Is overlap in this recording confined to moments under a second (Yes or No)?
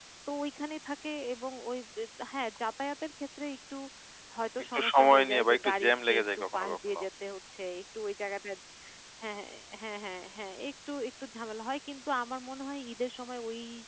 No